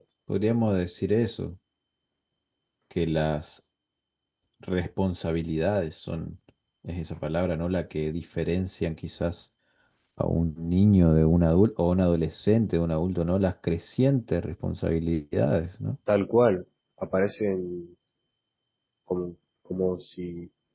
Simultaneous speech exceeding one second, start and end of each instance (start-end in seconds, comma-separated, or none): none